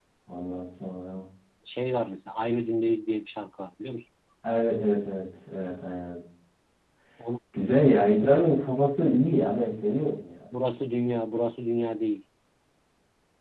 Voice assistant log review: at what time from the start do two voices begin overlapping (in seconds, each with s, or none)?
none